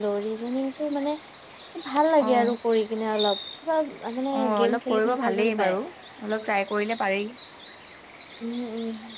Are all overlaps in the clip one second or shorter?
No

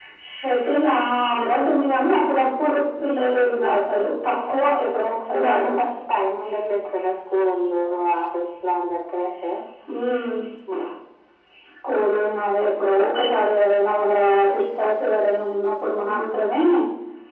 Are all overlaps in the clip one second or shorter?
Yes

